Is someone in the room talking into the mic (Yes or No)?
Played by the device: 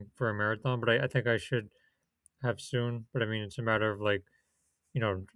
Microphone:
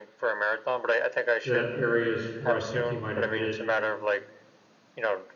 Yes